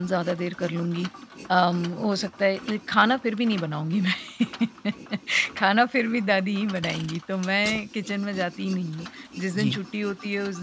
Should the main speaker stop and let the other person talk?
No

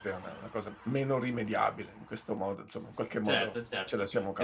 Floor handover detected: Yes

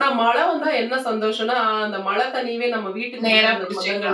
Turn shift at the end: No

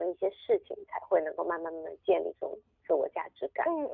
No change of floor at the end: No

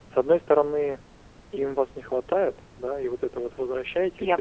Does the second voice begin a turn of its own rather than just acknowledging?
No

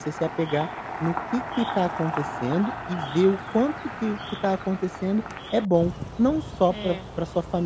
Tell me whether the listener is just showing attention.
Yes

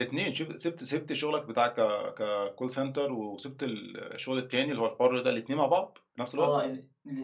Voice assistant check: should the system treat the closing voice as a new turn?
Yes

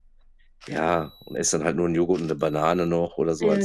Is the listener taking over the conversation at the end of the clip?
Yes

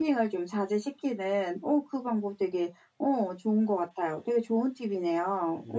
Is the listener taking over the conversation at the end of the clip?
Yes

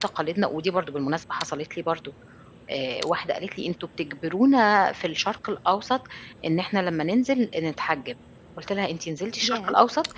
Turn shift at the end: No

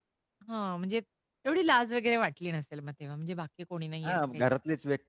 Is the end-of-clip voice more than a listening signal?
Yes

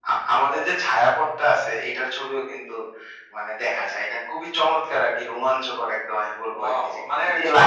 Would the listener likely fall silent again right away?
No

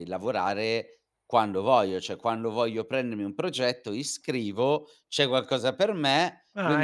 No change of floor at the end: Yes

